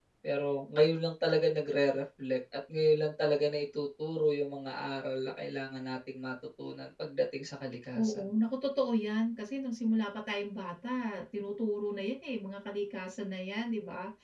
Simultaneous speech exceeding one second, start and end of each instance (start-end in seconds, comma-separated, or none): none